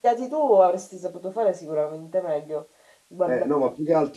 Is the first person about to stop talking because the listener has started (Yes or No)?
Yes